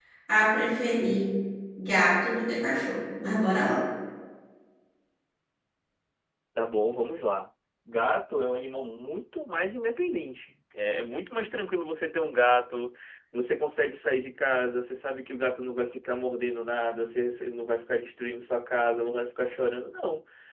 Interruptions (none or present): none